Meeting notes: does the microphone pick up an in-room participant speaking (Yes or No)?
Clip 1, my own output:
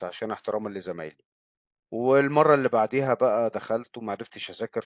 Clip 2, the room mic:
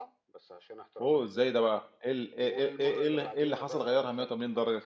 Yes